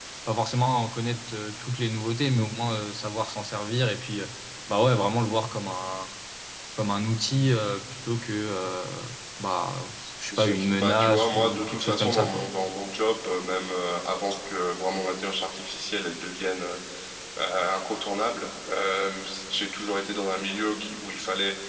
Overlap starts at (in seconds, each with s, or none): 10.3 s